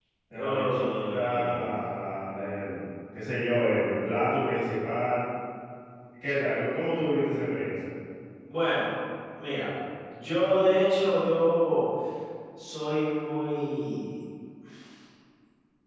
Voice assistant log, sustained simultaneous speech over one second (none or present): present